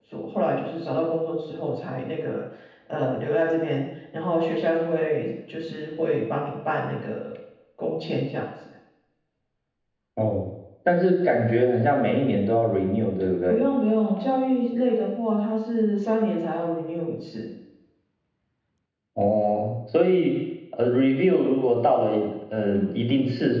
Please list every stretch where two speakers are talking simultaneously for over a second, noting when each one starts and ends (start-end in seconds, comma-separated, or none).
none